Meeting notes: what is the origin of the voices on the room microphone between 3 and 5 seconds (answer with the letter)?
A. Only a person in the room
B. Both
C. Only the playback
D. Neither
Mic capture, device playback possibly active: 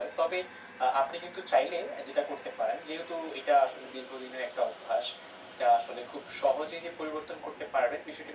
C